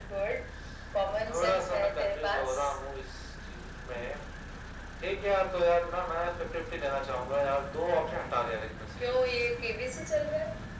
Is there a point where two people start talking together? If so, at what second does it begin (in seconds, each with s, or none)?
1.3 s